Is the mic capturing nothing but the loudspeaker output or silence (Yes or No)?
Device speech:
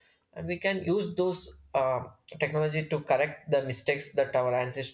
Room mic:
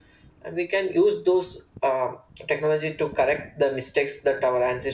Yes